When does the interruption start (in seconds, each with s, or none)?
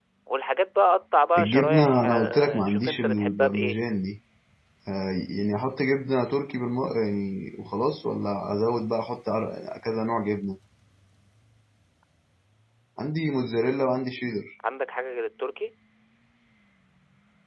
1.4 s